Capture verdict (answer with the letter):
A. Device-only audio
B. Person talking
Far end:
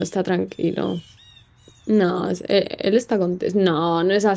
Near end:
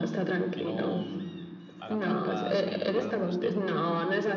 B